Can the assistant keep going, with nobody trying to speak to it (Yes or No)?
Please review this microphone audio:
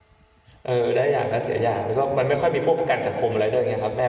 No